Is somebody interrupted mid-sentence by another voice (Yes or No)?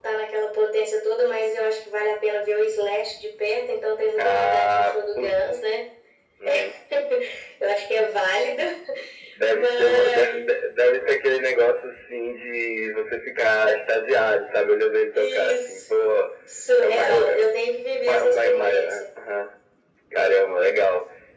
Yes